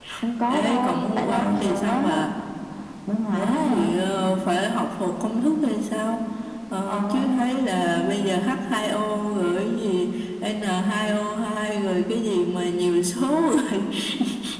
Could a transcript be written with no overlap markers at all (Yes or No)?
No